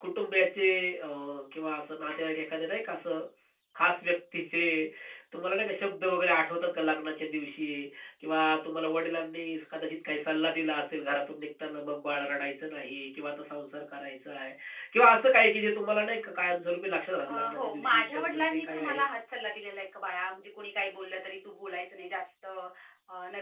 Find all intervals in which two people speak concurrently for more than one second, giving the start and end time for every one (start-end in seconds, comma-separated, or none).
17.3-19.0